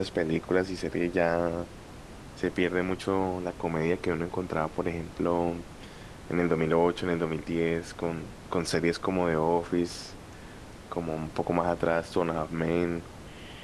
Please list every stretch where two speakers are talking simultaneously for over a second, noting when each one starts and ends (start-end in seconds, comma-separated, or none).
none